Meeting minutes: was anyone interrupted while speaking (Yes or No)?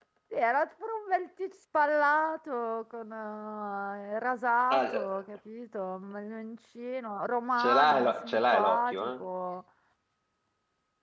Yes